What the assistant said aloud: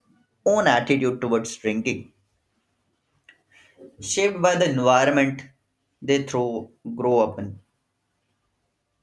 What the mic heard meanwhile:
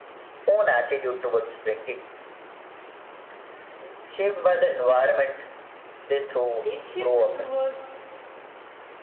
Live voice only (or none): This shift toward